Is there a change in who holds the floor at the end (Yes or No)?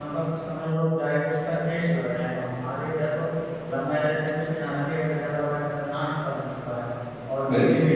No